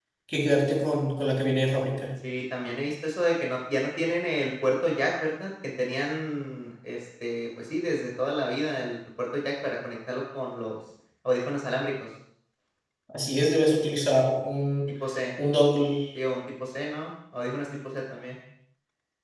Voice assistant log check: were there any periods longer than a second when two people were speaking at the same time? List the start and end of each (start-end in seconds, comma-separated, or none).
none